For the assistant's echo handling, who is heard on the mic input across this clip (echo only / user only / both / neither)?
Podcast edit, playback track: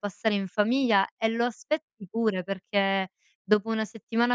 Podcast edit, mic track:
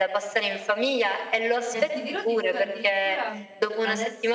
both